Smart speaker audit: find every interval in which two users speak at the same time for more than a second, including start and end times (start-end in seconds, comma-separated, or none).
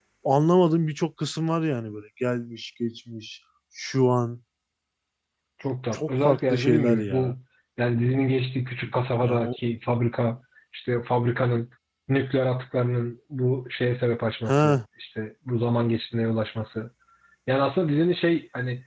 5.9-7.4